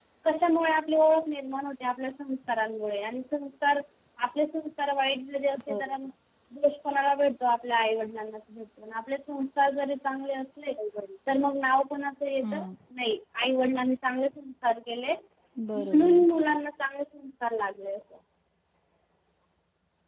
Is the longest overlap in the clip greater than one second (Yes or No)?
No